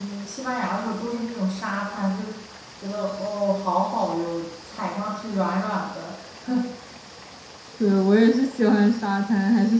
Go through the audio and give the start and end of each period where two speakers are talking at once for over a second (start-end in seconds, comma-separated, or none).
none